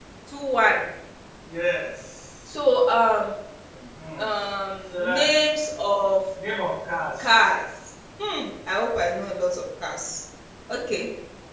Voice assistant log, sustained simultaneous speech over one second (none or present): none